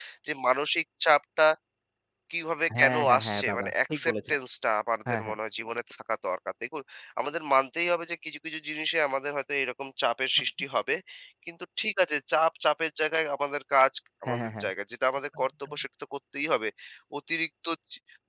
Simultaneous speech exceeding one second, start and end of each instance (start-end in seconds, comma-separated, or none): 2.8-4.4